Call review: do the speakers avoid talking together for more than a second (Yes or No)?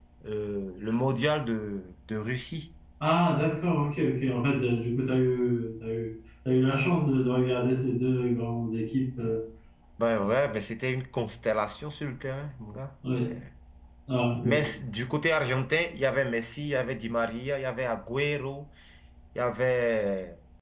Yes